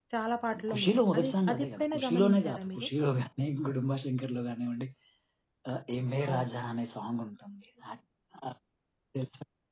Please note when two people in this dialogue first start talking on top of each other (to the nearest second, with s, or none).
1 s